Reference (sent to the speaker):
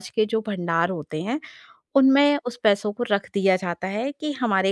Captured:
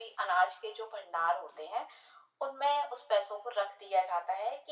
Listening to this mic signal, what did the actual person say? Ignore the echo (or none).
none